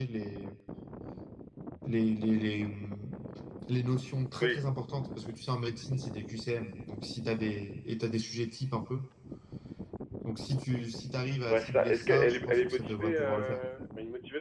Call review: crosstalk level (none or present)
present